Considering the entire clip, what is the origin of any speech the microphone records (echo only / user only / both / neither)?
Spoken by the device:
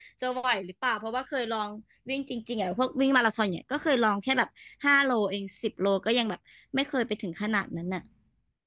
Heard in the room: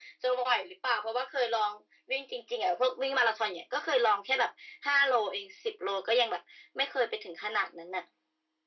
echo only